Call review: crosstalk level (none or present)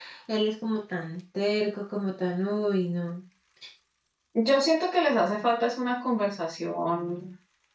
none